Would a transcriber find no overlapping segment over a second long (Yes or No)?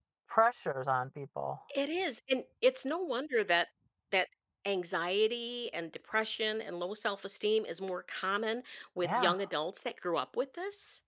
Yes